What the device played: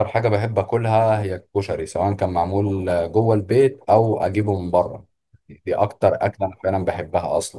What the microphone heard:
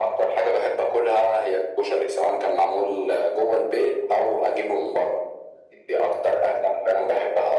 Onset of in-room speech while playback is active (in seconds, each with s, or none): none